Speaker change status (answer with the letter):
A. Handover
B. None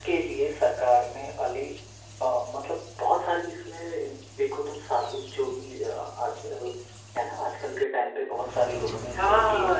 A